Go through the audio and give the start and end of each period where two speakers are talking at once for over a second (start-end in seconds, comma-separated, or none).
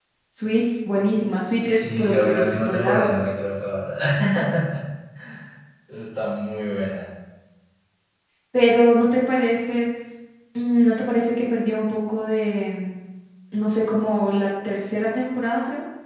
1.7-3.2